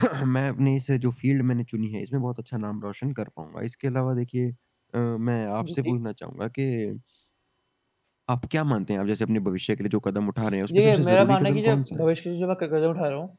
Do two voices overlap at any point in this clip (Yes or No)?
Yes